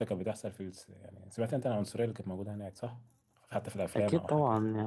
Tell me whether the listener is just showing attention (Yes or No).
No